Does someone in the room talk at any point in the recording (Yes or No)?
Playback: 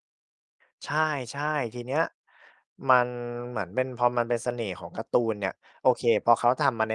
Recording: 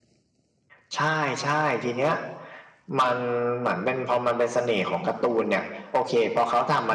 No